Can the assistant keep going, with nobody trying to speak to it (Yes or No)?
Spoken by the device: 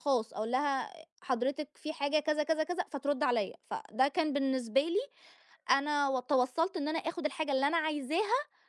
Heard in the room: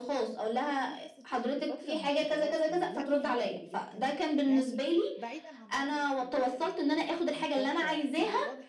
No